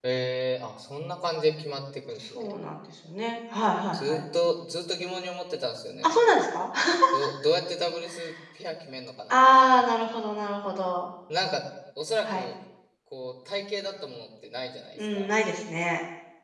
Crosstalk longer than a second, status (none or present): none